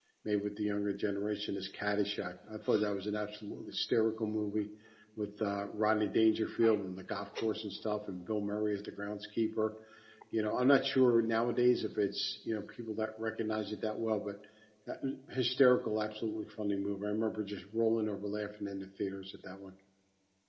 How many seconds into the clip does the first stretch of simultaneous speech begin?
none

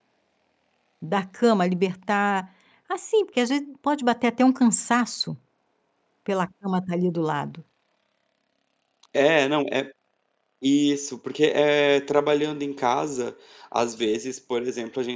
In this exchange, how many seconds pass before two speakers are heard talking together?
none

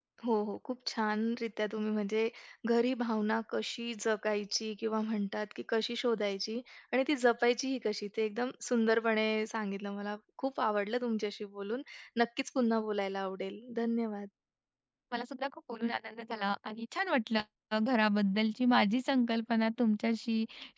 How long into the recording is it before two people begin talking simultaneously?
none

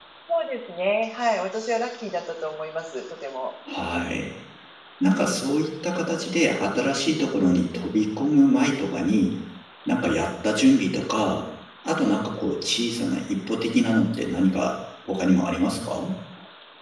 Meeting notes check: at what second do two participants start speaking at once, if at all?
none

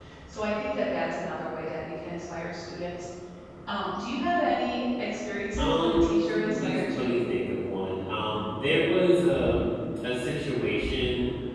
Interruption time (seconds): 5.6 s

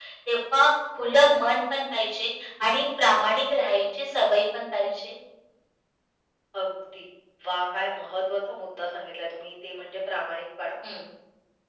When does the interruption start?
none

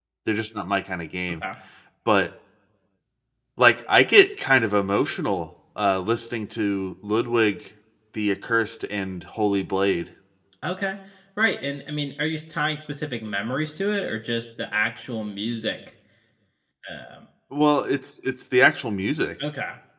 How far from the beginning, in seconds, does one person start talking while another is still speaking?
none

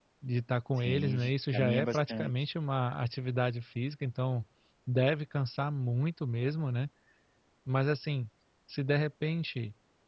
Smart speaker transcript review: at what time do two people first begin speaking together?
0.8 s

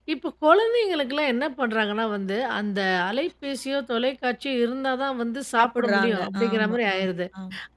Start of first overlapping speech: 5.6 s

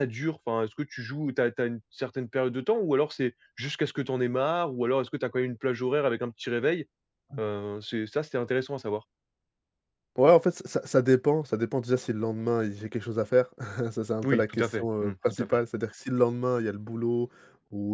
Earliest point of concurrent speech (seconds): 14.2 s

